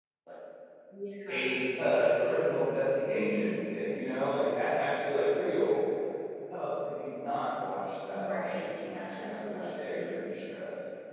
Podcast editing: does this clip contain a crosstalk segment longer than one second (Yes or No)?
Yes